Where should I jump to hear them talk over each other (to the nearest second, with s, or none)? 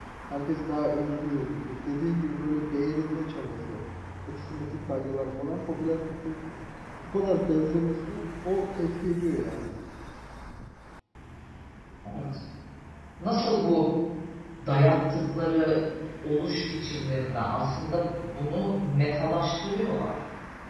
none